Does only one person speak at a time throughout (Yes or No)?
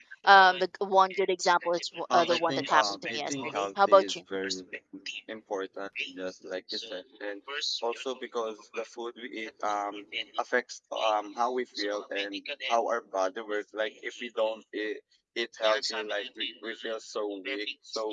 No